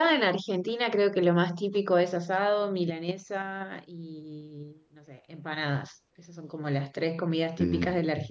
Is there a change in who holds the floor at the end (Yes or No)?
No